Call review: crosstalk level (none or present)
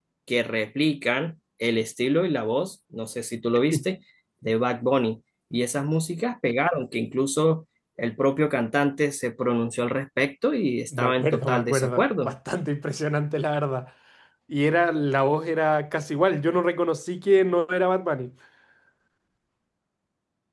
present